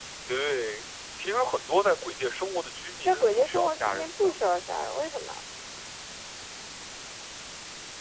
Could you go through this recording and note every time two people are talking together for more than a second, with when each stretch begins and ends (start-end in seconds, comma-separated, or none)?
3.0-4.3